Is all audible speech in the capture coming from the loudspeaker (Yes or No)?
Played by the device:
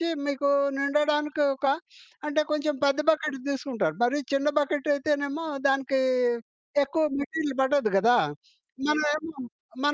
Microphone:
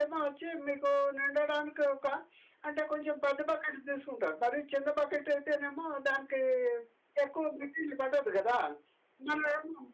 Yes